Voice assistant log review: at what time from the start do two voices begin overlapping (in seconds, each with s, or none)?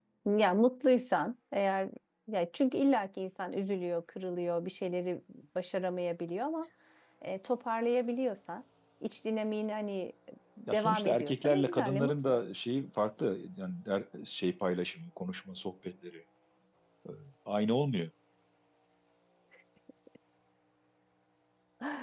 10.7 s